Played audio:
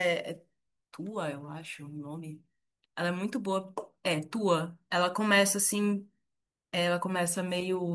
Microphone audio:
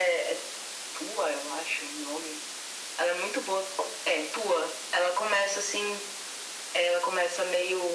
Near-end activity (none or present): none